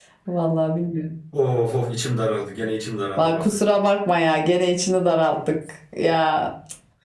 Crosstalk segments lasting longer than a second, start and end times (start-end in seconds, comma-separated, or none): none